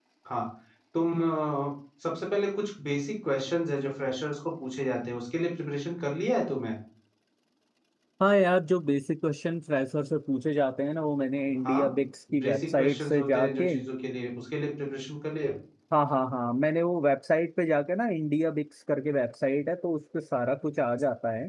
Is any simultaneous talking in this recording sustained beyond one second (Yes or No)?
Yes